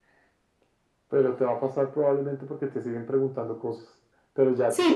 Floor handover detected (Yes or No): Yes